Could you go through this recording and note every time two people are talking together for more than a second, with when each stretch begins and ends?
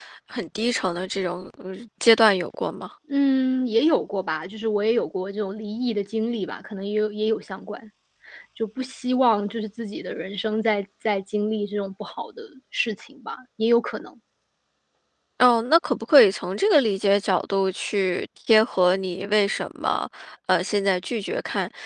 none

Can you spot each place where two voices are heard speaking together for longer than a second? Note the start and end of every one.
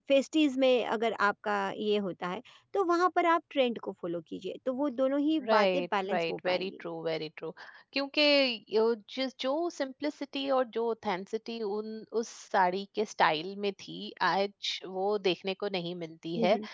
5.5-6.7

